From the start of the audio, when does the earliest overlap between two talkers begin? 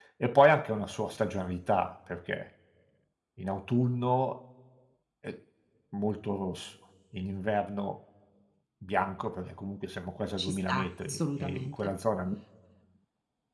10.4 s

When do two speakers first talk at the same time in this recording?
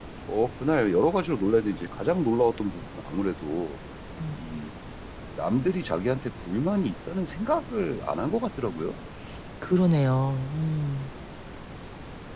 none

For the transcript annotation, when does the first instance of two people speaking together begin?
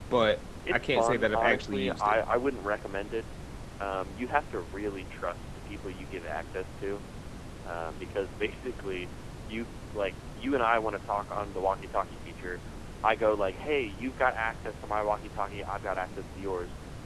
0.7 s

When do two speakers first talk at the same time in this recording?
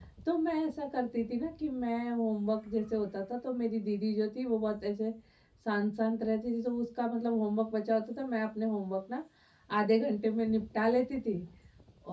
none

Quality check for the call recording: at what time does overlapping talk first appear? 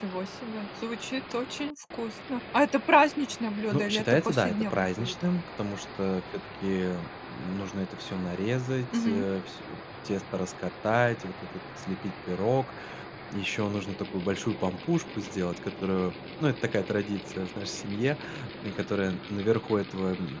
3.7 s

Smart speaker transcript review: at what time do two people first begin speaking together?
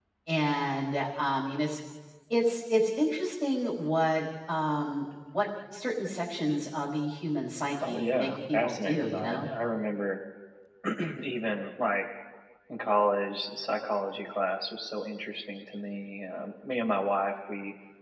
7.8 s

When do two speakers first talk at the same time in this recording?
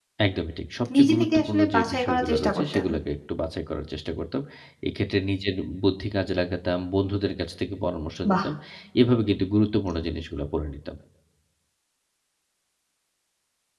0.9 s

